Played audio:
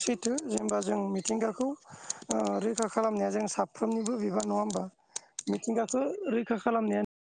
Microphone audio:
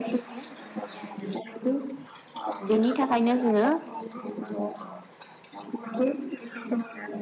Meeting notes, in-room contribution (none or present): present